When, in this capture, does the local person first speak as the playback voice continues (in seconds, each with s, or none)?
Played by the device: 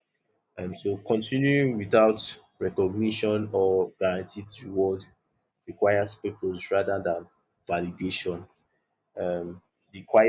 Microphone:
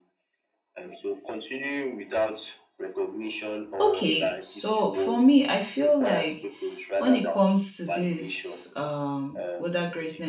3.8 s